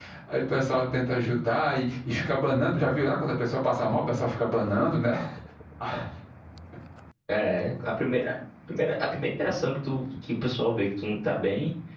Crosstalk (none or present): none